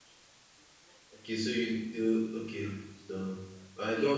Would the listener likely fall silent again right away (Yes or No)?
Yes